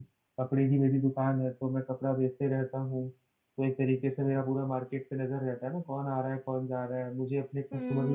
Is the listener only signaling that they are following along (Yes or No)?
No